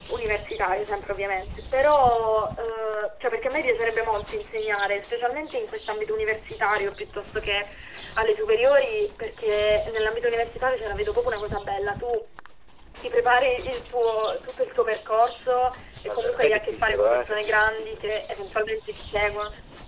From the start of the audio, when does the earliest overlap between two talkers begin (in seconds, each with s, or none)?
16.1 s